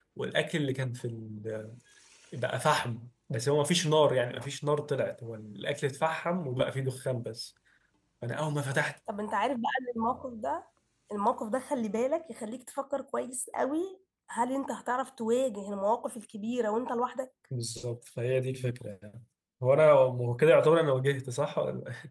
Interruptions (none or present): none